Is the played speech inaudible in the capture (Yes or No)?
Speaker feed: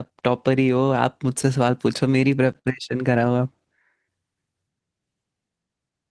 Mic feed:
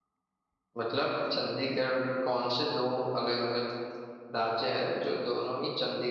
Yes